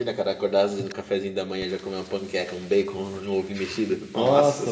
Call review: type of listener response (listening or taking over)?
taking over